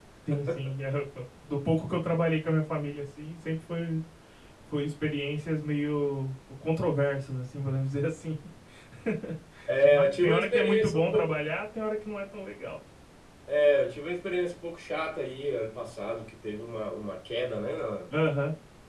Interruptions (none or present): present